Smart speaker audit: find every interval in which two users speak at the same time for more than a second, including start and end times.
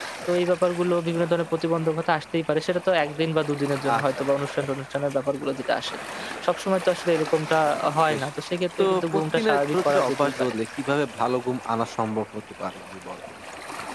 8.8-10.5

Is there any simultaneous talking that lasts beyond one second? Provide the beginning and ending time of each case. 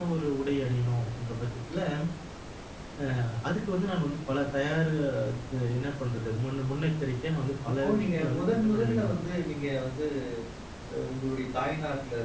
7.8-9.1

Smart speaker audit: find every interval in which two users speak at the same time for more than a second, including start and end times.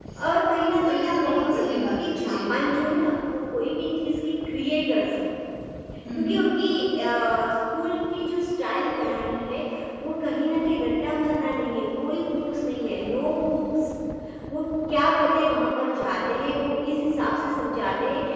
0.8-2.4

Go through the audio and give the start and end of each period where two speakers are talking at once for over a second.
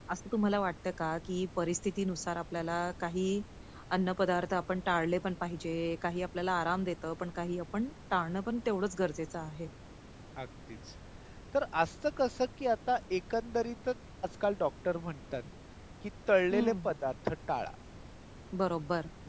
none

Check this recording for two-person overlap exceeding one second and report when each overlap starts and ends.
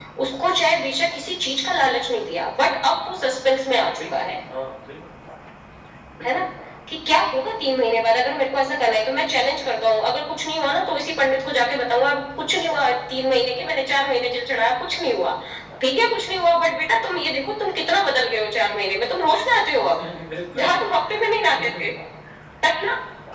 none

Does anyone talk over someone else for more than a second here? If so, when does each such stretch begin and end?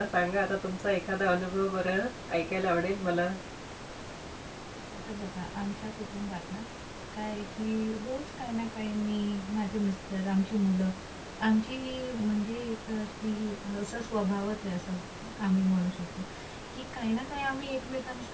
none

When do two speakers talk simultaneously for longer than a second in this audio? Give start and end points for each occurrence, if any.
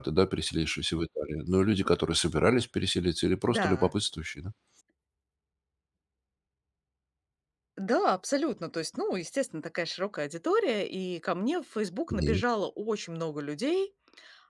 none

